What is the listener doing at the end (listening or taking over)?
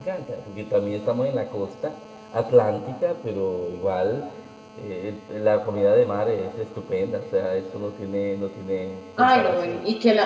taking over